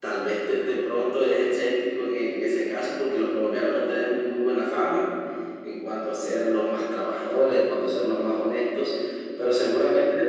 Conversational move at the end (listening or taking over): listening